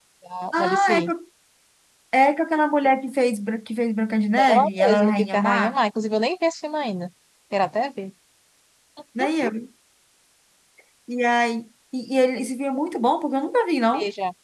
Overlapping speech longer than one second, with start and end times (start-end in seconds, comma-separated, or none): 4.4-5.7